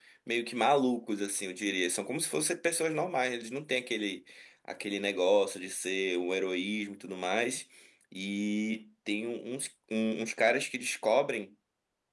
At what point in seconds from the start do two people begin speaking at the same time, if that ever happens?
none

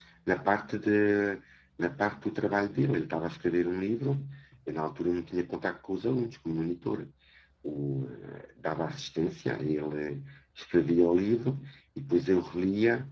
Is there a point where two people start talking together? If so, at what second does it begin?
none

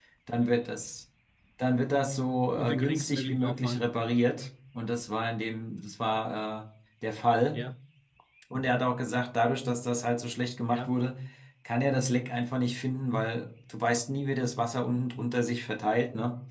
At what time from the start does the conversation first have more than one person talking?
3 s

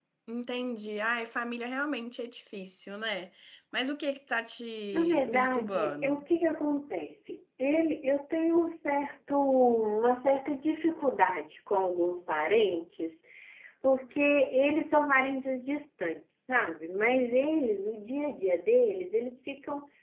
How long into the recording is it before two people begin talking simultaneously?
5 s

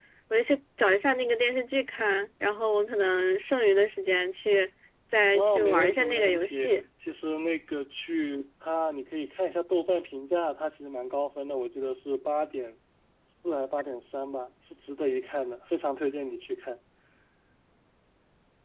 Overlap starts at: 5 s

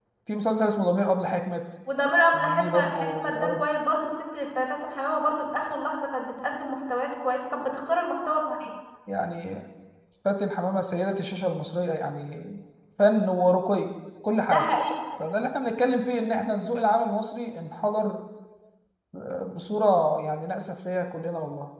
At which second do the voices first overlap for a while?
2 s

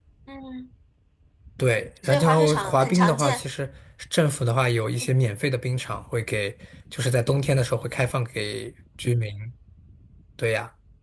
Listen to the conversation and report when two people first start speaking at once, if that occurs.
2 s

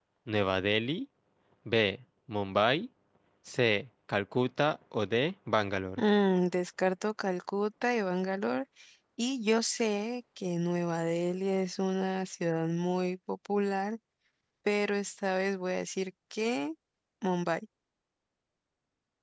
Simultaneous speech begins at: none

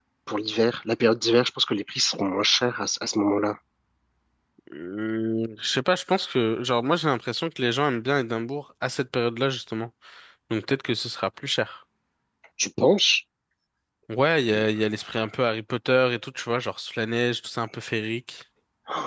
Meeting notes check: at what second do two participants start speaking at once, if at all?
none

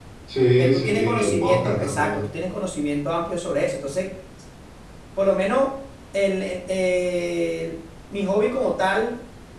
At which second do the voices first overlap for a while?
1 s

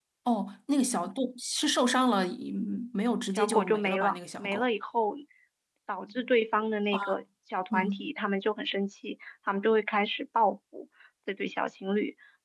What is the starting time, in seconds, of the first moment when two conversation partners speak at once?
3 s

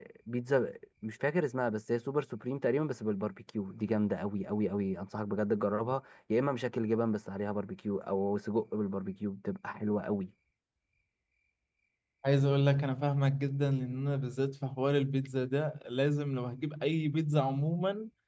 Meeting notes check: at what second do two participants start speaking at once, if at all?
none

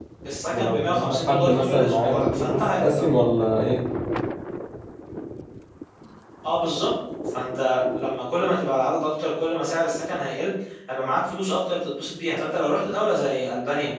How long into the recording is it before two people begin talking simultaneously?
1 s

